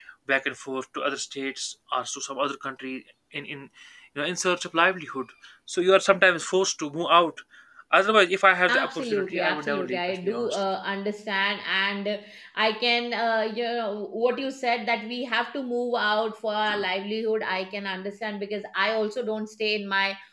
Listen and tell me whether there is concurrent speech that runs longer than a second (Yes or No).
Yes